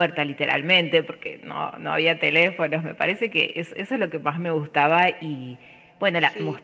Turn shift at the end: No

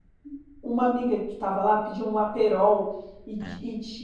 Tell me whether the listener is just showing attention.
Yes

